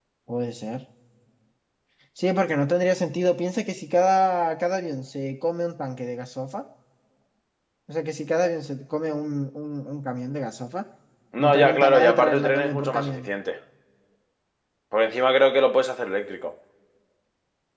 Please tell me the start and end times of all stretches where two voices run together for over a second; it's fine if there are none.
11.4-13.3

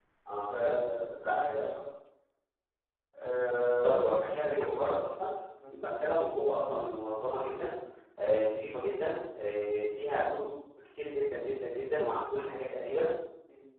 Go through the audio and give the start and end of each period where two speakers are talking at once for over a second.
3.7-4.9

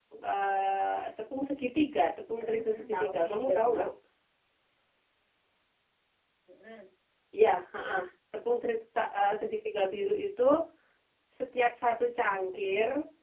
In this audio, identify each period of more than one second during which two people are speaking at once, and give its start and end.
2.4-3.9

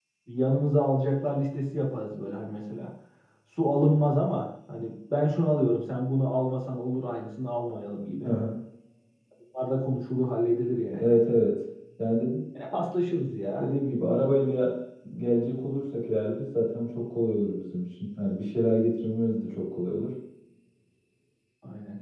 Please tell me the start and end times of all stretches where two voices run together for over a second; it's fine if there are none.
none

